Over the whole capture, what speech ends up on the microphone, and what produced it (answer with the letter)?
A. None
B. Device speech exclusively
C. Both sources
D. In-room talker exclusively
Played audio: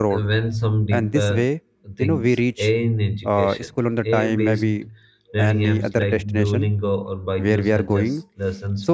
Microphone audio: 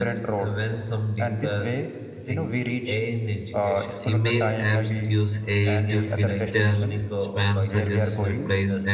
C